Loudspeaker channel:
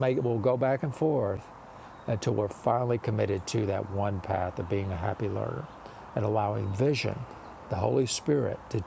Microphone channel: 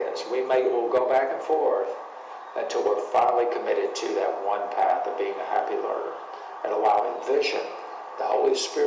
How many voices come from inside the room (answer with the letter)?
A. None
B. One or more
A